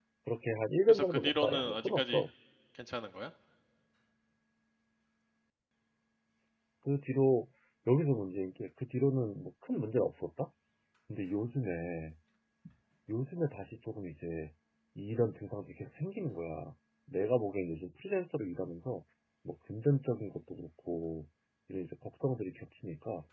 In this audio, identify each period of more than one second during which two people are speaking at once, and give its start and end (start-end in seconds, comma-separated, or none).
0.9-2.2